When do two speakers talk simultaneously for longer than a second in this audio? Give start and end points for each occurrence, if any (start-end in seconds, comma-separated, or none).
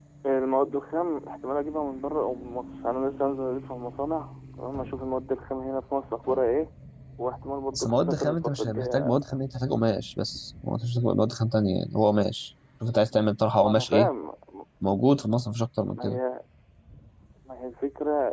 7.7-9.2